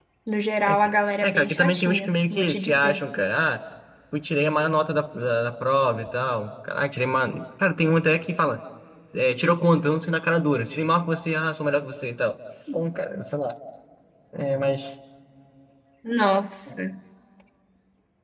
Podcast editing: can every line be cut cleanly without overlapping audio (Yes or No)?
No